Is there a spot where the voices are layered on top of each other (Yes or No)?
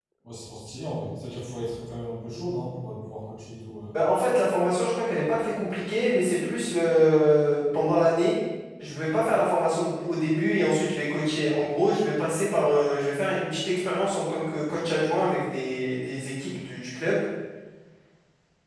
No